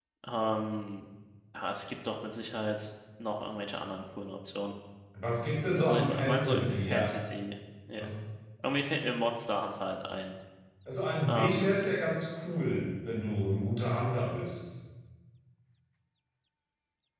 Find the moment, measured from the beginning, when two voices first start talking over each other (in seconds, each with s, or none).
5.8 s